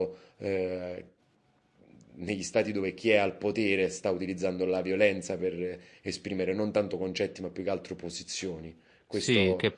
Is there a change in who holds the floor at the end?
Yes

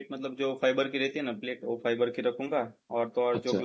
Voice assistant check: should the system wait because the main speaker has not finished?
Yes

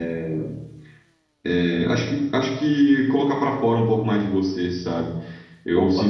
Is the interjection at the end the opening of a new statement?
No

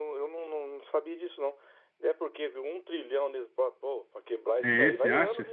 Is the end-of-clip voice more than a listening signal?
Yes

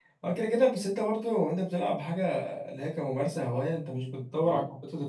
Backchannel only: Yes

